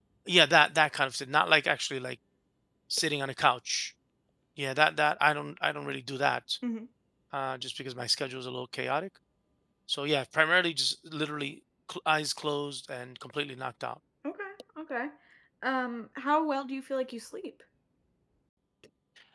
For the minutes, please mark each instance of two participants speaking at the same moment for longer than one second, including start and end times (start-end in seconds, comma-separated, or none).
none